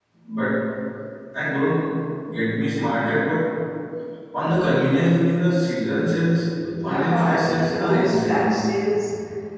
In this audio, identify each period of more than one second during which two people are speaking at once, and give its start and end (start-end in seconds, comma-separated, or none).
6.8-8.6